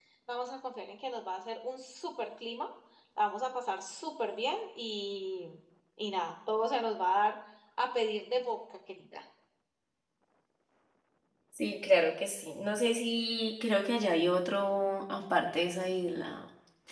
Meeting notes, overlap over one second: none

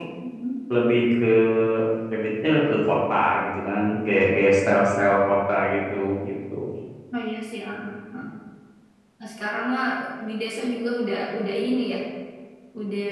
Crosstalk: none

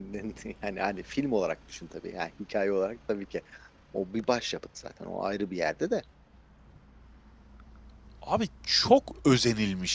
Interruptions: none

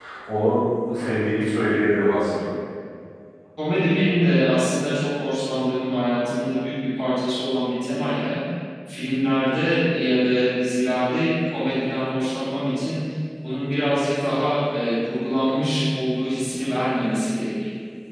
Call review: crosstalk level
none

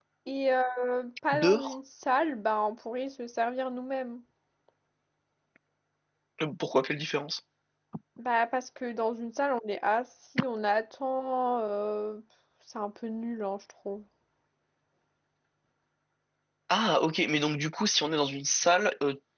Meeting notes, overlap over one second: none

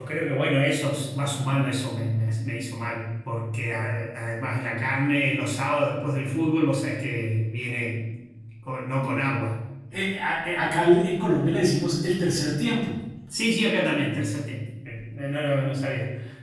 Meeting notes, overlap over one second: none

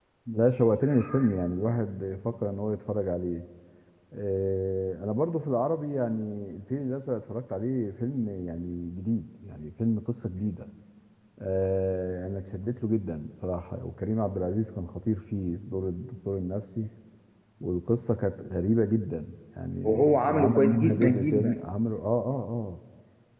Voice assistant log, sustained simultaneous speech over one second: present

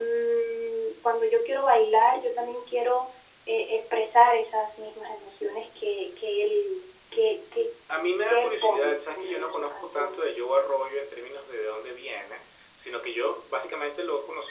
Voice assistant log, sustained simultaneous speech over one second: present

